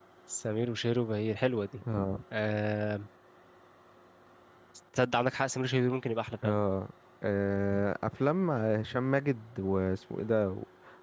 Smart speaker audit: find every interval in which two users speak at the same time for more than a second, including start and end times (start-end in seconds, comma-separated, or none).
none